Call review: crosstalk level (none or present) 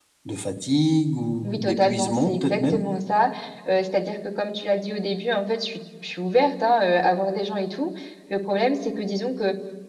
present